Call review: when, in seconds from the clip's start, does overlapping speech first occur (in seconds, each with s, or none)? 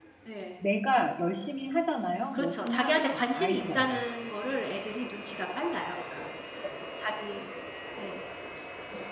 2.3 s